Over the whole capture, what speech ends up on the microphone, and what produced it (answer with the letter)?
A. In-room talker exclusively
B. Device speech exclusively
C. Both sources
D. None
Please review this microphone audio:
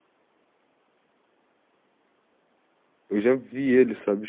A